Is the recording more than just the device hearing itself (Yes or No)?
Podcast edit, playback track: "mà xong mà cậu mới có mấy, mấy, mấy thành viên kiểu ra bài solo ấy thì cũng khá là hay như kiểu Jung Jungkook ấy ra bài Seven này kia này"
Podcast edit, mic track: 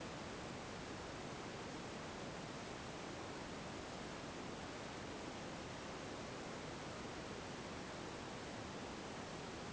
No